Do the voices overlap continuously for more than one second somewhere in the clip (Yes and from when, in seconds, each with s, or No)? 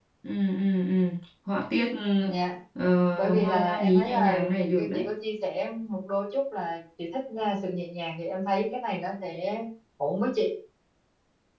Yes, from 3.1 s